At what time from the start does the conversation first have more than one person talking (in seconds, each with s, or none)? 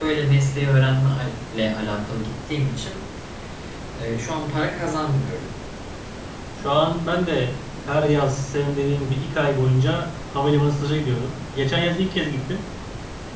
none